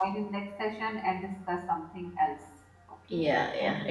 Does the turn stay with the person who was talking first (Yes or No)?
No